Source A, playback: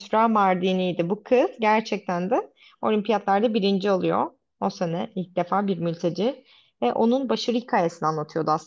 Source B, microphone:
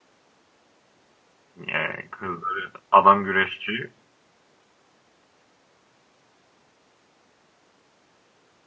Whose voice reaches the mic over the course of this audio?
user only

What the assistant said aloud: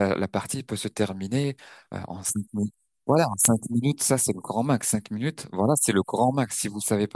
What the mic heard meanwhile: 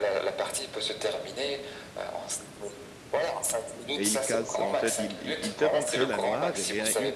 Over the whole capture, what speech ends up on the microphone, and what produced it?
both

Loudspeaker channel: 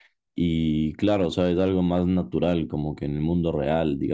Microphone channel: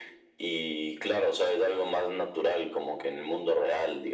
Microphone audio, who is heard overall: echo only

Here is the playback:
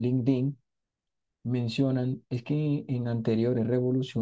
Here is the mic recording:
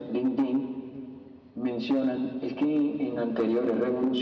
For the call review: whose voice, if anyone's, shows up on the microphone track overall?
echo only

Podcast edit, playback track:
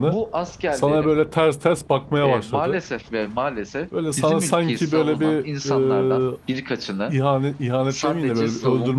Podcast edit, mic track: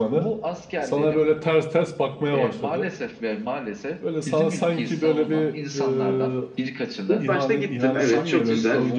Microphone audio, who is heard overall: both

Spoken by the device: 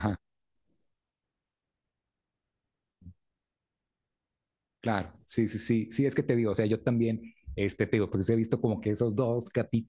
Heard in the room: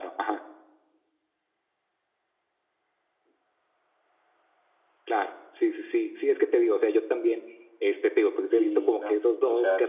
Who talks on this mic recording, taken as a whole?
both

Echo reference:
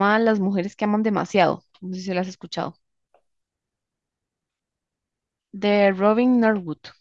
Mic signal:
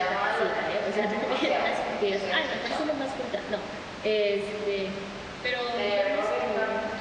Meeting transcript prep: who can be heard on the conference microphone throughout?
both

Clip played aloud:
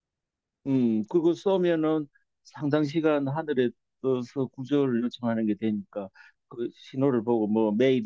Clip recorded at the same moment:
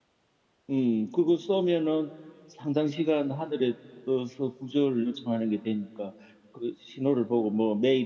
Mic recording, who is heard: echo only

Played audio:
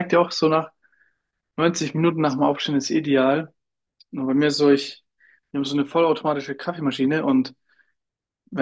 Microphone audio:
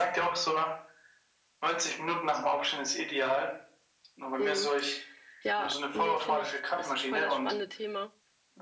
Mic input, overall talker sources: both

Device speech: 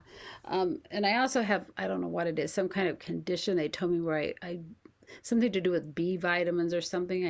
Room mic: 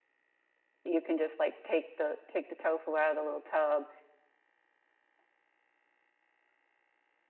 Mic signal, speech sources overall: user only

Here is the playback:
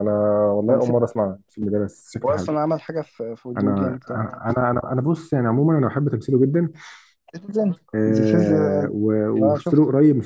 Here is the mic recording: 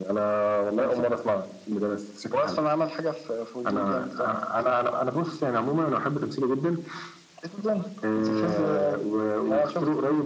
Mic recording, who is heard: echo only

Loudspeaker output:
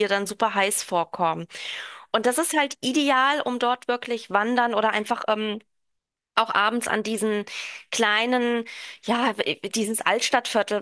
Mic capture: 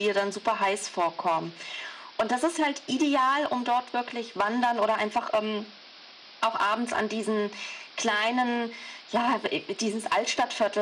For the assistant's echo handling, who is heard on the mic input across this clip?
echo only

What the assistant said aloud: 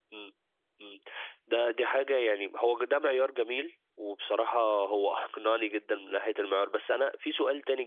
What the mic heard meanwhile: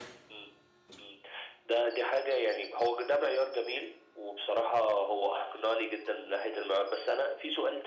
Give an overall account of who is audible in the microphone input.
echo only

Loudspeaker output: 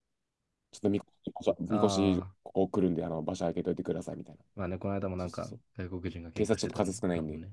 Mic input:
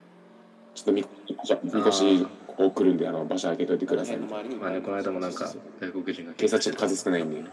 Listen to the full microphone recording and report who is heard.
both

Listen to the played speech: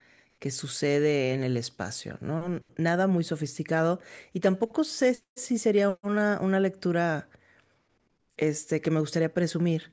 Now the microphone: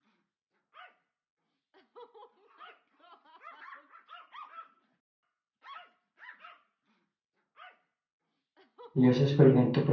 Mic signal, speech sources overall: user only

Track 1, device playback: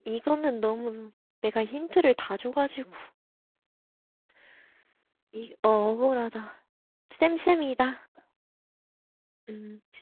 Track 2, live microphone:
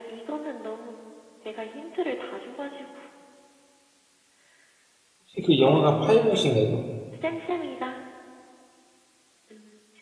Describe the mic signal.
both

